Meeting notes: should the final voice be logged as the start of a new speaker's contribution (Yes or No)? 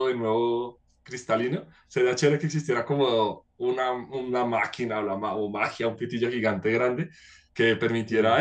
No